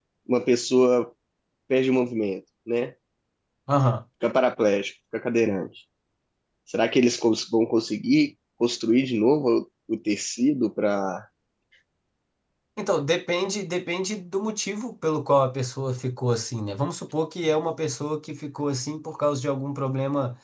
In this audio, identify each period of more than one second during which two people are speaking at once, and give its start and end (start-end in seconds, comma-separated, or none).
none